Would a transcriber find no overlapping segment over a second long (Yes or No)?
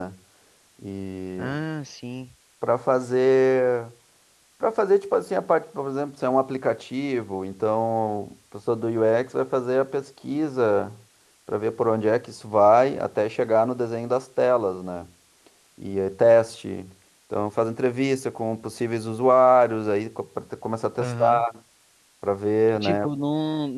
Yes